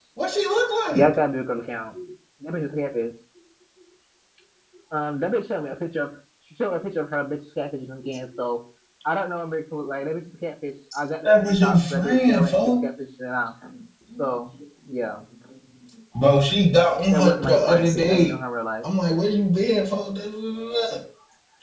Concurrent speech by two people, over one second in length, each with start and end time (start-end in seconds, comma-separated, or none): 11.2-12.8, 17.1-18.3